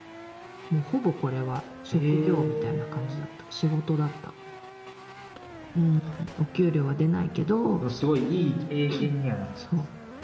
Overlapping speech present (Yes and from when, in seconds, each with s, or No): Yes, from 1.9 s